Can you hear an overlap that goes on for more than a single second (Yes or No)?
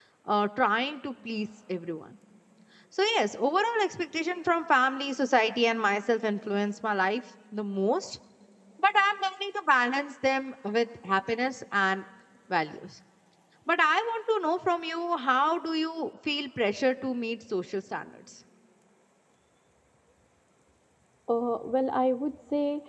No